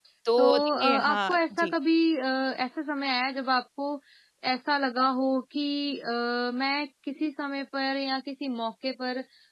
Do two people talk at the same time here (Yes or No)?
Yes